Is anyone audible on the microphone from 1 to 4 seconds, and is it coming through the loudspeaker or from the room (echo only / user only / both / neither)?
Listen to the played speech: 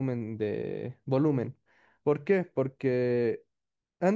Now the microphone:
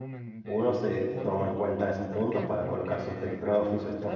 both